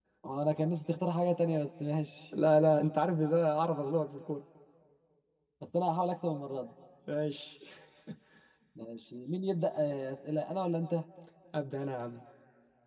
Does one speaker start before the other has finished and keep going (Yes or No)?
No